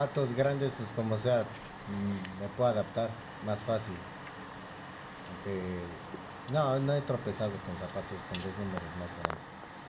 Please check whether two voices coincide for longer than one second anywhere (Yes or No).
No